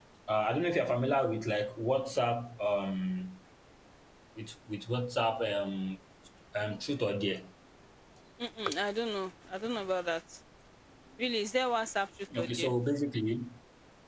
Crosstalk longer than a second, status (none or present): none